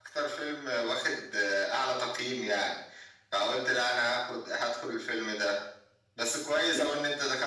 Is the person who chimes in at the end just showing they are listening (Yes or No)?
Yes